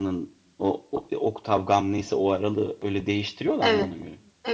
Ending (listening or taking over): taking over